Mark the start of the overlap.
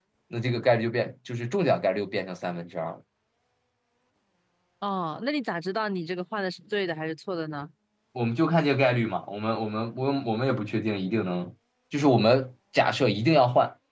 none

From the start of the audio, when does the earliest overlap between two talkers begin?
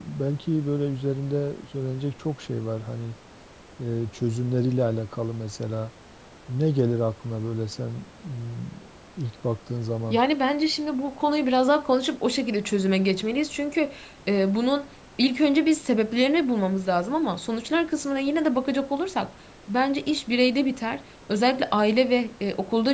none

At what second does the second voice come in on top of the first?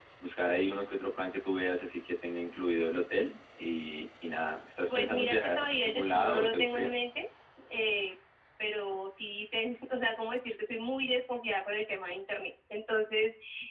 4.9 s

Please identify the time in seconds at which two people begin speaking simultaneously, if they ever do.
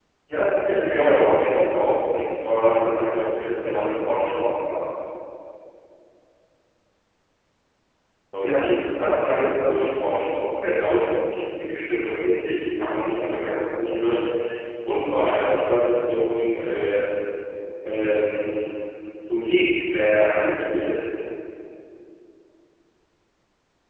0.7 s

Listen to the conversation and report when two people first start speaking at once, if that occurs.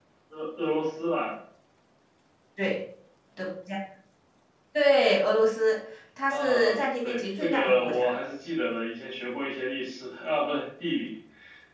6.3 s

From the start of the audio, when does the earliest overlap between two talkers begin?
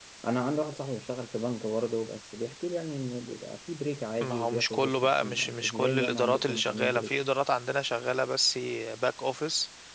4.2 s

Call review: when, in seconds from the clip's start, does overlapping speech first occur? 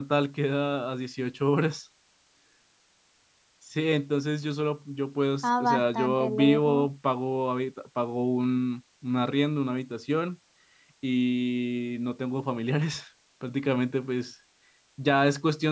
5.4 s

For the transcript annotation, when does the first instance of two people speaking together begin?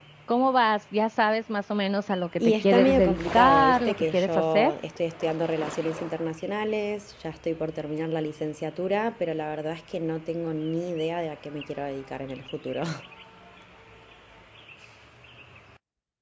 2.4 s

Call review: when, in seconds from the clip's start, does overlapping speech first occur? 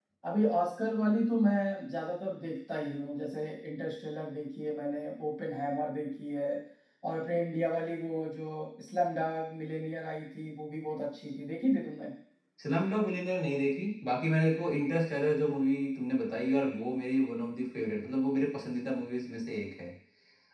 none

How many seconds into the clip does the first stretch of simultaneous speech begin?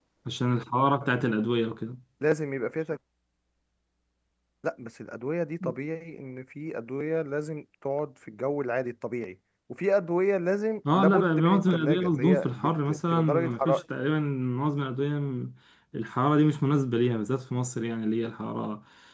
10.8 s

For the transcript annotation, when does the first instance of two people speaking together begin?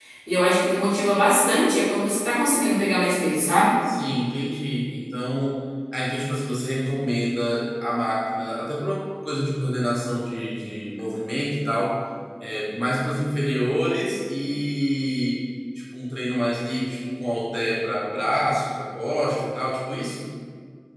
none

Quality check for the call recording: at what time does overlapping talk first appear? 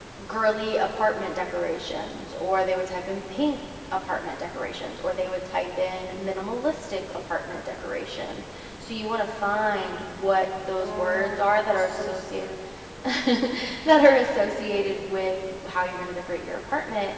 10.7 s

